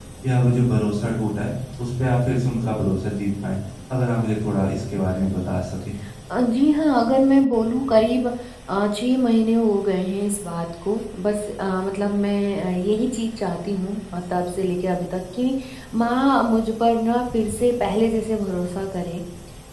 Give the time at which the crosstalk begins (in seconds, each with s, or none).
none